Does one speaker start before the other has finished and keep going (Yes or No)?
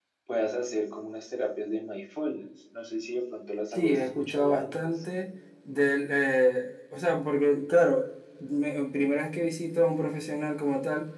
Yes